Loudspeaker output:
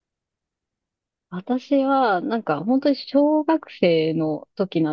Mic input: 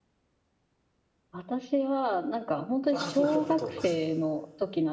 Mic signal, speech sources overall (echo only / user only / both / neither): both